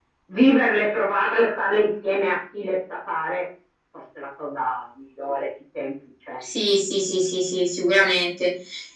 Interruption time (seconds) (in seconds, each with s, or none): none